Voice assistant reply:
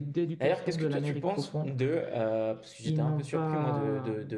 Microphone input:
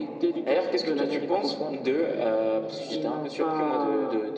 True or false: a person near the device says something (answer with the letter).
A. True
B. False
B